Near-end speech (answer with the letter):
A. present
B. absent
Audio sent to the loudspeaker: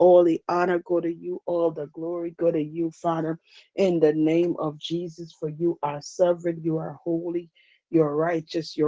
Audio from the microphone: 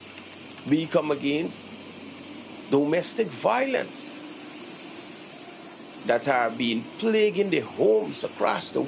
A